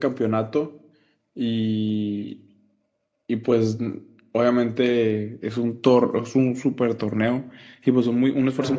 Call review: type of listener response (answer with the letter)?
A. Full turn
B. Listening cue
B